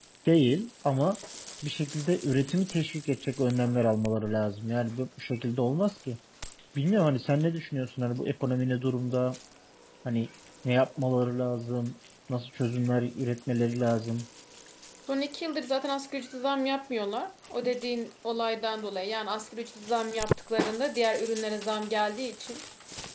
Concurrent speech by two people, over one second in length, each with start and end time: none

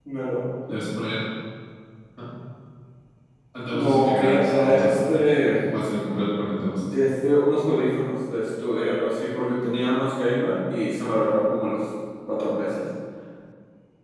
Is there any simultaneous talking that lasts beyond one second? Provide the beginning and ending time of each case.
3.7-5.2

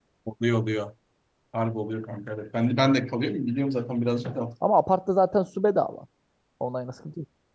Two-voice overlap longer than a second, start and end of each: none

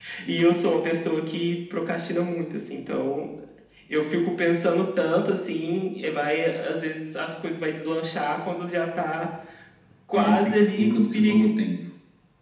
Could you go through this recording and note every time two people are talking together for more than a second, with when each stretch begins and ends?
10.1-11.5

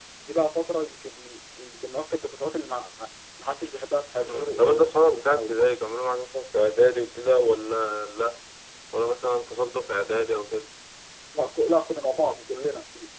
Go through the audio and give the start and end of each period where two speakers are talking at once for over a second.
4.2-5.6

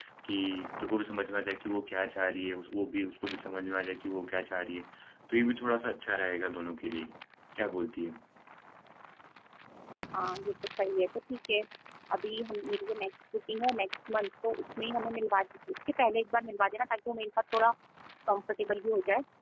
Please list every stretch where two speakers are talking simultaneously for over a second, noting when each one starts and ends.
none

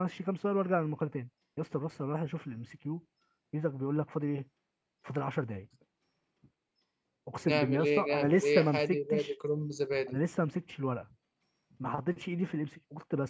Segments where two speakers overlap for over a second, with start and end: 7.5-9.3

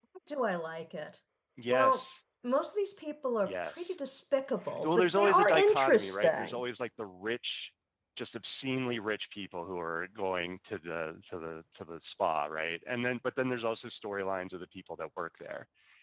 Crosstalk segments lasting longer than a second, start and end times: 4.8-6.6

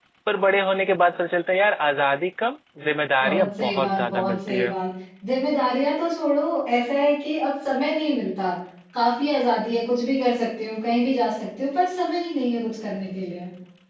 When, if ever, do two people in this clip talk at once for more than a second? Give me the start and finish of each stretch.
3.2-4.7

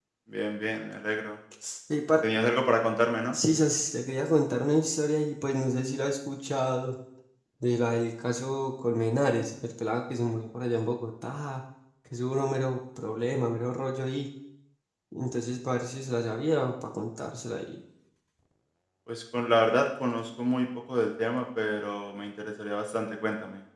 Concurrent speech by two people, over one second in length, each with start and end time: none

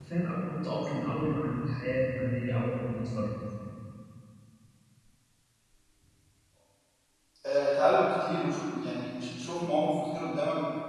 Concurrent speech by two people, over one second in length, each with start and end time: none

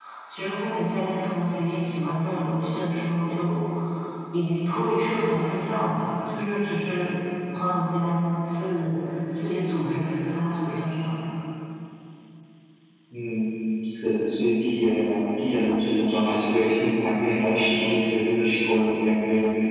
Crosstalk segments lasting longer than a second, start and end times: none

